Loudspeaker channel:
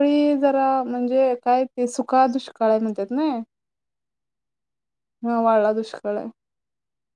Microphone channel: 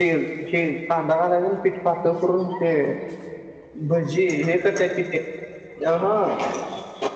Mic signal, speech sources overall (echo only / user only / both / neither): user only